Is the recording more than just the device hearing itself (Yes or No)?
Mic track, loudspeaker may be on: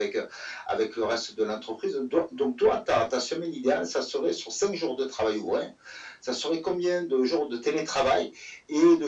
No